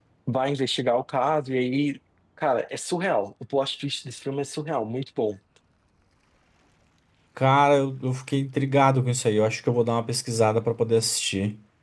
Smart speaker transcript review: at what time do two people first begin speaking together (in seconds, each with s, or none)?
none